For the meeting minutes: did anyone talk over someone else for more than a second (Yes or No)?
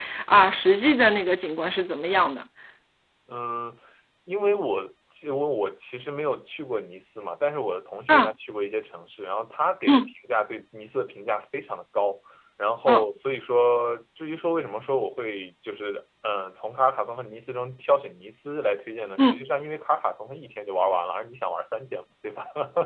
No